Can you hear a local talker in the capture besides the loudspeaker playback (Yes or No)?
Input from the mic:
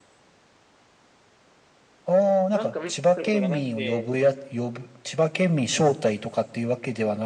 Yes